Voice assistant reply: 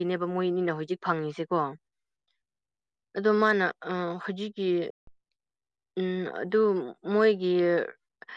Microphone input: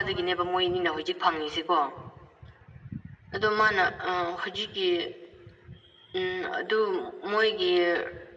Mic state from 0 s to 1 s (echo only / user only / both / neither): echo only